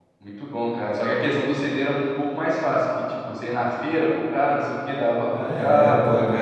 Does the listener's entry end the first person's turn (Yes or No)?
Yes